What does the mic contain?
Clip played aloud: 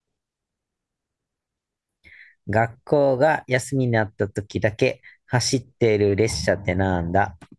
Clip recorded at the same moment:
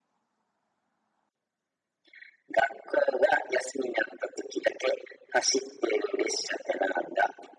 echo only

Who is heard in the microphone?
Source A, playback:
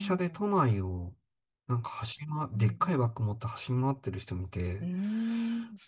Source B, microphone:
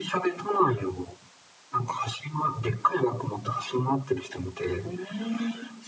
echo only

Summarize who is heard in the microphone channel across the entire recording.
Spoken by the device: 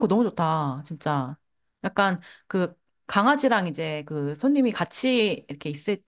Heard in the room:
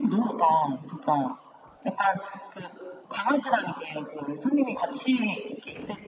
echo only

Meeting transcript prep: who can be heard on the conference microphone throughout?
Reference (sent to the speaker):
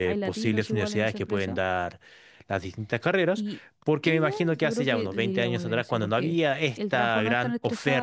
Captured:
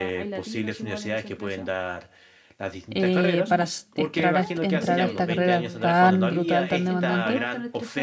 both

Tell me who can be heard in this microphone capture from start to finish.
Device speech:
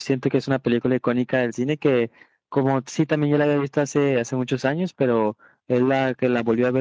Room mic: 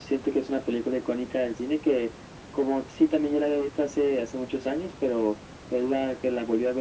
echo only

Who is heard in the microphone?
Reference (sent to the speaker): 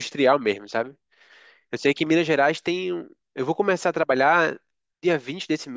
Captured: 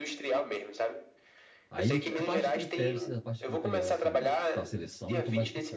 both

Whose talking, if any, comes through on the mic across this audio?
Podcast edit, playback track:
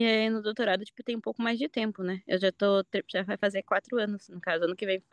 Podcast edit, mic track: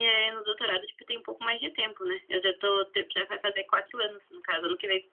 echo only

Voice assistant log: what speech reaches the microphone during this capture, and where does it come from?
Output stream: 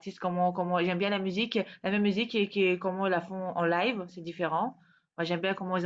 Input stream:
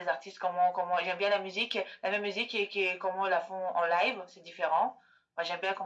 echo only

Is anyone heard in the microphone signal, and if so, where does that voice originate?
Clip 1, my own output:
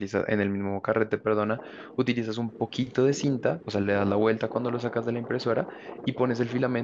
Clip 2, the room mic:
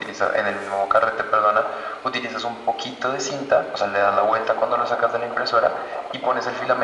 echo only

